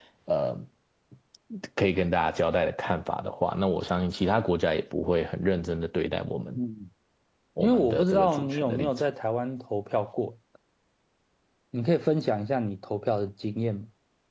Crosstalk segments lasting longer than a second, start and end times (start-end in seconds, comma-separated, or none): 7.6-8.9